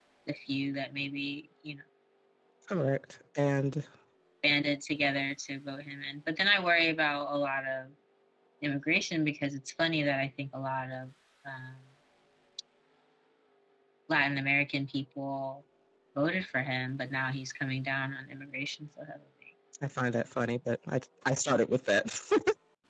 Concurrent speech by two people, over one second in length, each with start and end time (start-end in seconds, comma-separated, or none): none